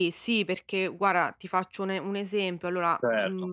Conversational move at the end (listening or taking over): listening